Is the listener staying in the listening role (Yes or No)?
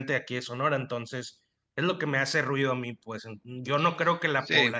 Yes